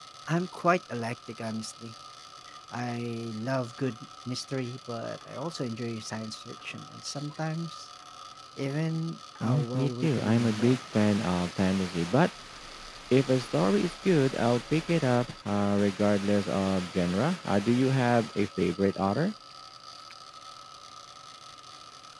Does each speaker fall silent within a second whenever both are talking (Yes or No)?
No